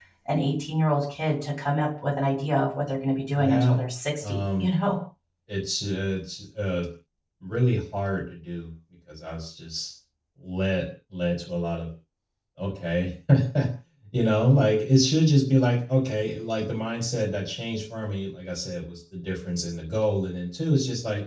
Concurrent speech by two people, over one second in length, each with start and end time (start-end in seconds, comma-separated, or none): none